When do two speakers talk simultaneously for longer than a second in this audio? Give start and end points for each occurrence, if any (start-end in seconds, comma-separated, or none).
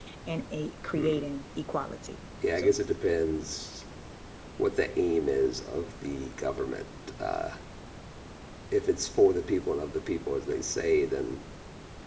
none